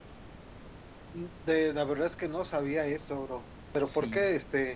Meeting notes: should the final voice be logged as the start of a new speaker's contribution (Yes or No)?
No